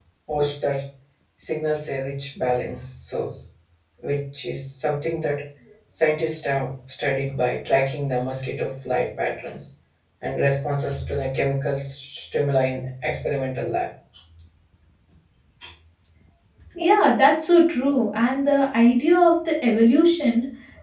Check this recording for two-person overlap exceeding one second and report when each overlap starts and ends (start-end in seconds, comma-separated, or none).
none